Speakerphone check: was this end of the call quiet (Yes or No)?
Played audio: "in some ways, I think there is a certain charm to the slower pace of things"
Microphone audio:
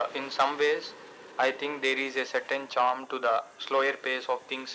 Yes